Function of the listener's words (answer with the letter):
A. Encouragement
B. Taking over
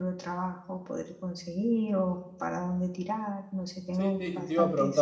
B